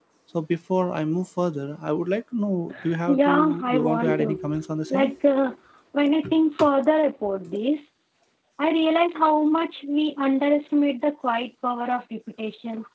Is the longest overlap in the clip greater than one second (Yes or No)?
Yes